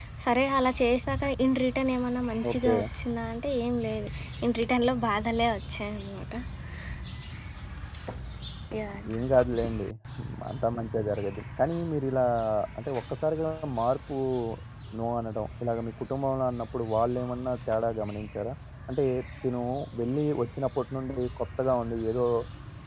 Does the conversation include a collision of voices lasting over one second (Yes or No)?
No